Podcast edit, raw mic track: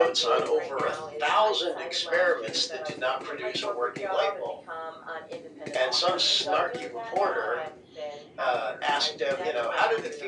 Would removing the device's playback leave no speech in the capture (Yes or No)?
Yes